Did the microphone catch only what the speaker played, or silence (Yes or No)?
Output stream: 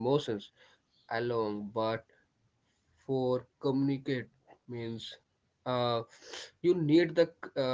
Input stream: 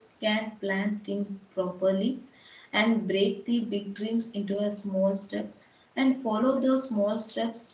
No